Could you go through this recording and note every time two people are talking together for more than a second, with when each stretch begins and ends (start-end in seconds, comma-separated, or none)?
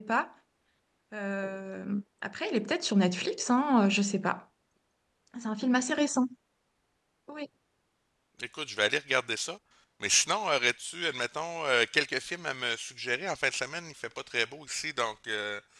none